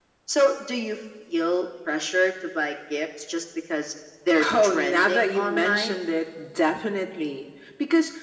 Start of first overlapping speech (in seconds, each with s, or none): 4.4 s